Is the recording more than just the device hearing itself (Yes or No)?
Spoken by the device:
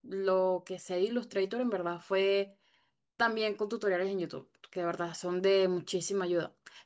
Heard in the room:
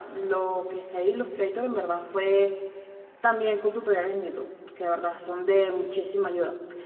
No